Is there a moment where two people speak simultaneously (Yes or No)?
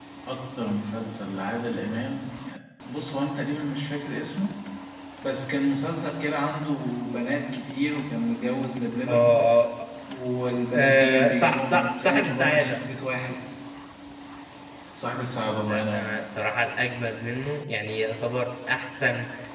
Yes